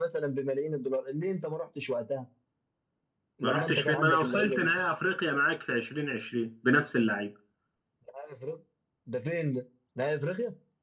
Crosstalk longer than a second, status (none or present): present